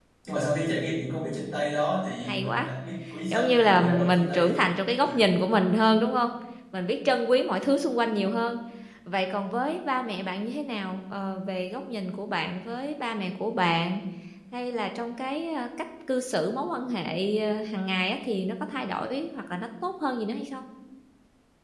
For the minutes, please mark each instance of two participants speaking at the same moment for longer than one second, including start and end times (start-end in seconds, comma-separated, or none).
3.3-4.6